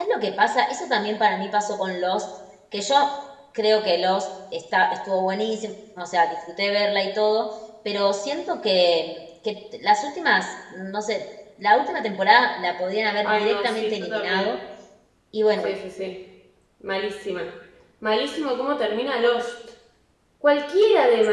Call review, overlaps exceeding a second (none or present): present